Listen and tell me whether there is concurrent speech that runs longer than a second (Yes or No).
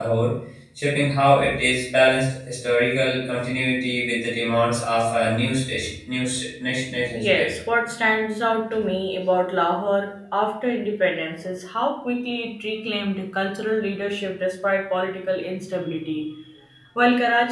No